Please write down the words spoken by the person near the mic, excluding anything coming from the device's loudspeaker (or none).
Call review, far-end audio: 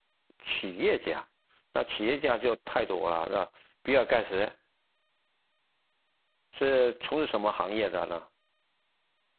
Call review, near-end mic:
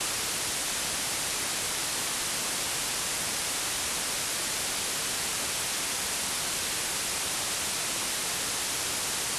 none